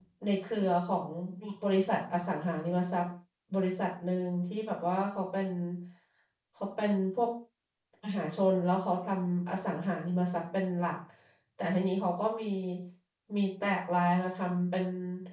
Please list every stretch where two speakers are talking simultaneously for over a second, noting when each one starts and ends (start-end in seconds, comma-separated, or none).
none